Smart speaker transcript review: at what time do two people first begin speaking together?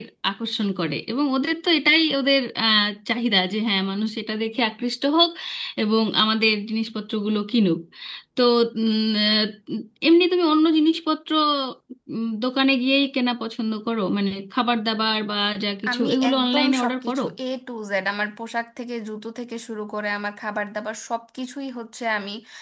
16 s

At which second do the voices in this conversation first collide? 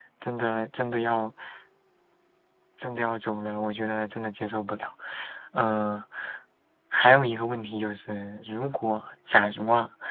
none

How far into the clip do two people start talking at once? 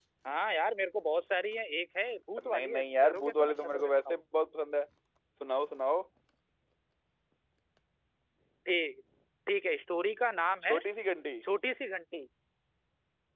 2 s

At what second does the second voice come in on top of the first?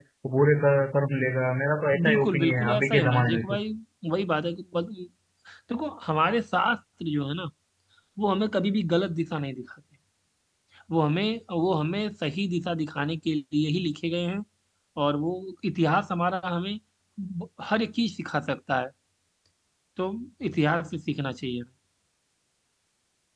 2 s

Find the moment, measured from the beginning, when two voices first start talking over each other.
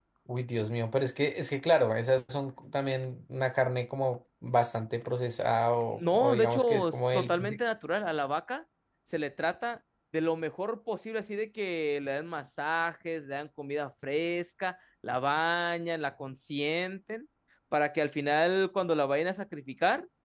6 s

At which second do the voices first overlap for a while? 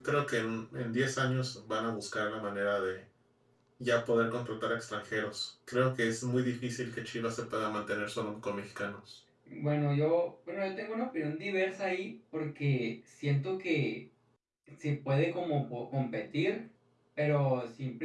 none

